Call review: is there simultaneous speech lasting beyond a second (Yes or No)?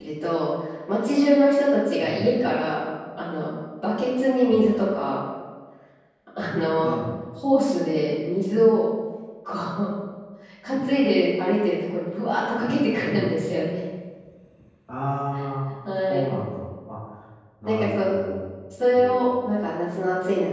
No